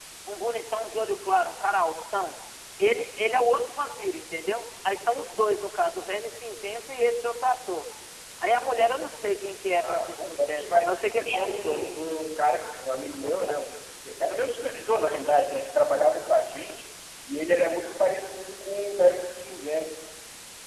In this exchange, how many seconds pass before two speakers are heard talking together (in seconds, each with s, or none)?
9.8 s